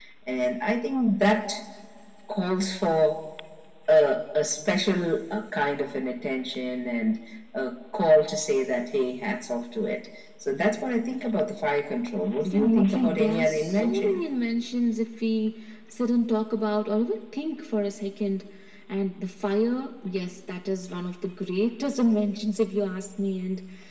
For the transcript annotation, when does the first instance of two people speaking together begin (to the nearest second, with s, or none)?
12 s